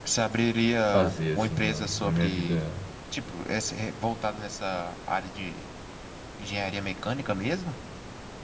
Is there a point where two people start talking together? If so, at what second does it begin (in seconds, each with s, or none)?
0.9 s